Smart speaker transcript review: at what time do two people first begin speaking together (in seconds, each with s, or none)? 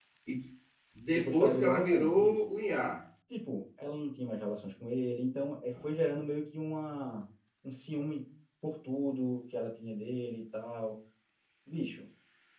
1.1 s